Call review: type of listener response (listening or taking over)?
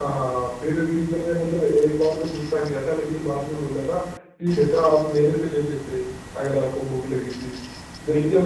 listening